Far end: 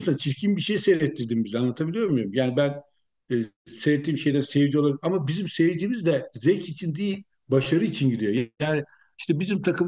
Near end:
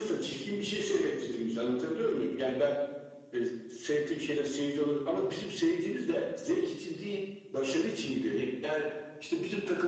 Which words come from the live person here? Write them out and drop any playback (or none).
none